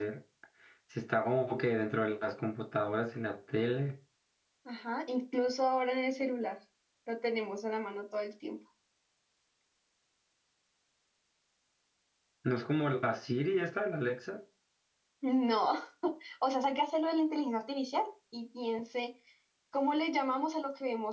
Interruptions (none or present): none